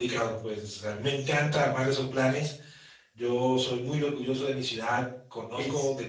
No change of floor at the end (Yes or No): Yes